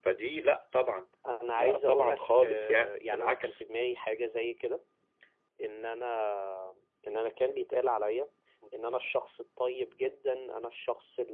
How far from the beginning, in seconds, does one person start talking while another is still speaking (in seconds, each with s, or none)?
1.5 s